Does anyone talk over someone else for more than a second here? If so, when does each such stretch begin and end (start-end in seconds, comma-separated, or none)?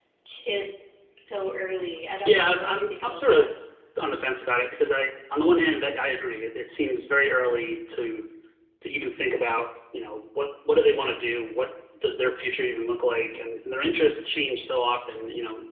2.2-3.5